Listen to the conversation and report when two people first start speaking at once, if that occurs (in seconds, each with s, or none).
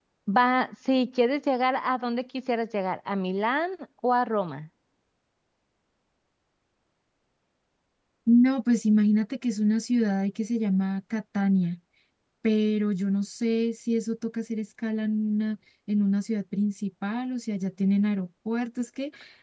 none